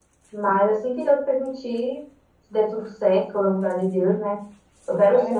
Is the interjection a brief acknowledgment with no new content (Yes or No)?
No